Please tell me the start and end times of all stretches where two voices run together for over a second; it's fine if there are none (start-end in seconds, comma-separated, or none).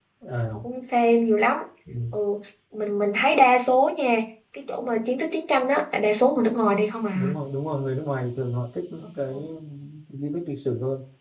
none